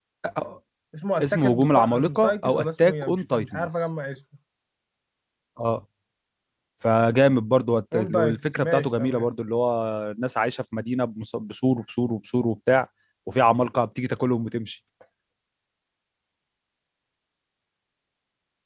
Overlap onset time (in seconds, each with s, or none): 1.2 s